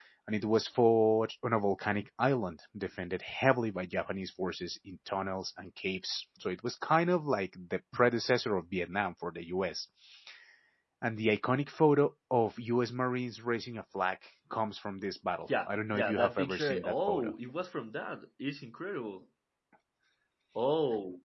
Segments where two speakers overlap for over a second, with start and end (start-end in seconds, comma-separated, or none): 15.7-17.3